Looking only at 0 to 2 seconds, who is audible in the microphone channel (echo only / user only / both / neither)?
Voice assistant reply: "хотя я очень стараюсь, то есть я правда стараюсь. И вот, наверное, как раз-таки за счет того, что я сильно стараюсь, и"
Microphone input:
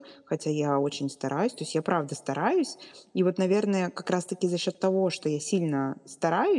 echo only